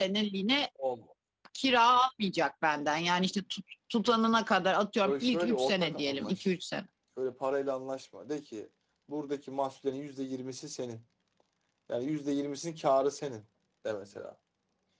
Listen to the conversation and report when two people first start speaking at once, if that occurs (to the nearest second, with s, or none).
5 s